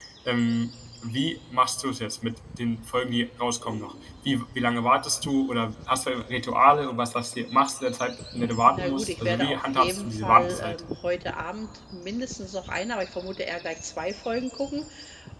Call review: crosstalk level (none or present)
present